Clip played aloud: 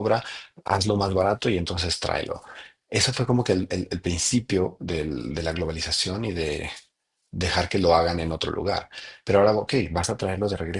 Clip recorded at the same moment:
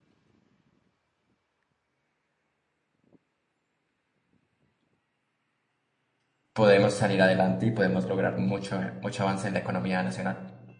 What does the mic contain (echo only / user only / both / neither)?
user only